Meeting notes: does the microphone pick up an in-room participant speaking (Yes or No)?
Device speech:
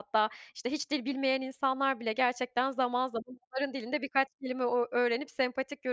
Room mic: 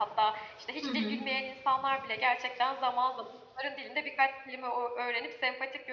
Yes